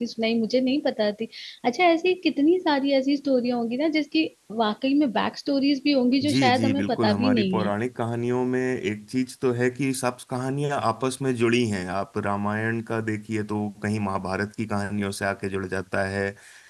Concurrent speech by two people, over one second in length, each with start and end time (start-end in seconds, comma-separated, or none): 6.3-7.7